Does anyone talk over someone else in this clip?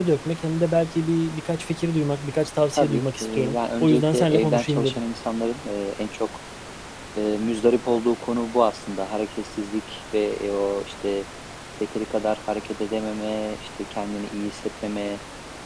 Yes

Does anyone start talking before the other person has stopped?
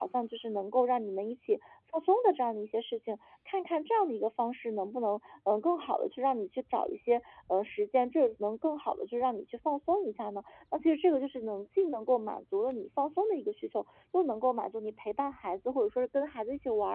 No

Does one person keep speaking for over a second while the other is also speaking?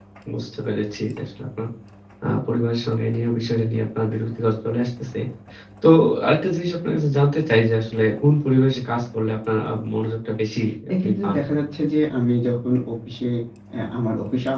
No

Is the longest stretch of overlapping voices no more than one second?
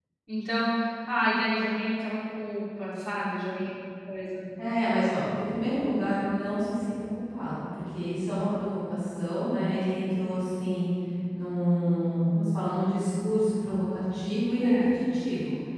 Yes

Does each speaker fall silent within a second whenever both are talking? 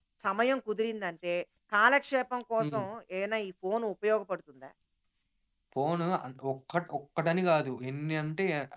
Yes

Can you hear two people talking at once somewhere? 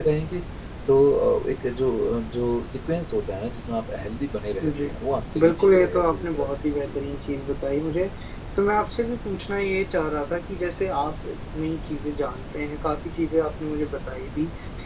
Yes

